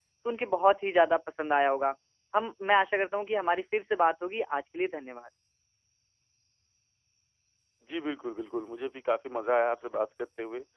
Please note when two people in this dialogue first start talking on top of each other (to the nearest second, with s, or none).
none